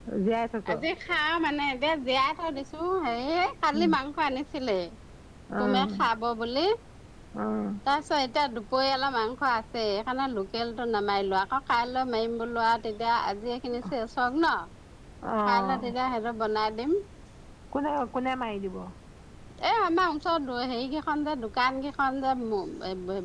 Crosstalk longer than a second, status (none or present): none